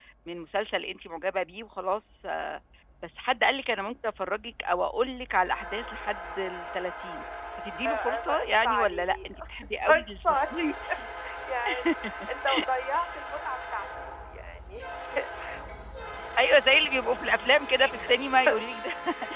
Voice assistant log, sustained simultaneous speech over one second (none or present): present